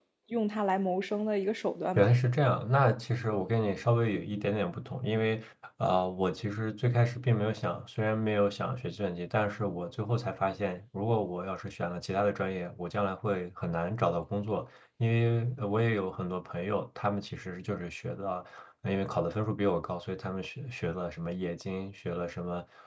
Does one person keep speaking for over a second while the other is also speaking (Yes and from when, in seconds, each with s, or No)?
No